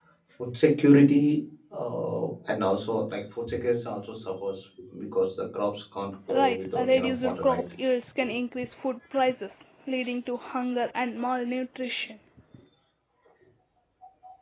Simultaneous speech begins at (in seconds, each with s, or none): 6.3 s